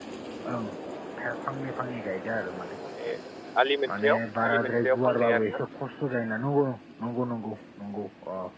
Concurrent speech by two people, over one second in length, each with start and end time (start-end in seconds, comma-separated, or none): 3.9-5.6